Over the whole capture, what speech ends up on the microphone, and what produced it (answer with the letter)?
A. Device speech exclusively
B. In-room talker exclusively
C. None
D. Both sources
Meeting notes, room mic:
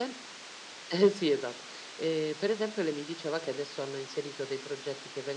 A